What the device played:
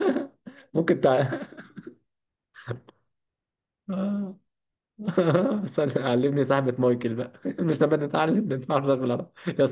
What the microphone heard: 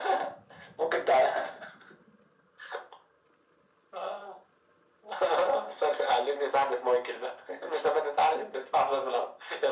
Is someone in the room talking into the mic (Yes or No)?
No